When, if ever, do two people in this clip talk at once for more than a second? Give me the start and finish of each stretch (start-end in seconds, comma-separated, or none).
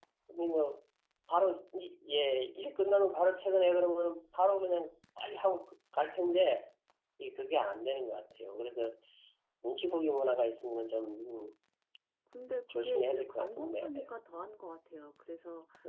12.7-14.1